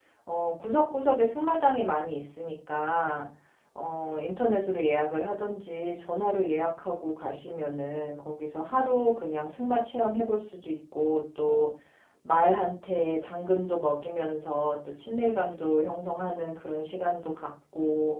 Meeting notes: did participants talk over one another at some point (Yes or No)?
No